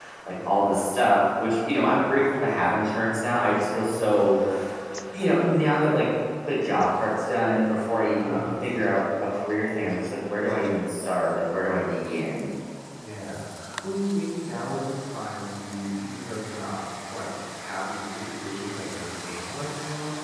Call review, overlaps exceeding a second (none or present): none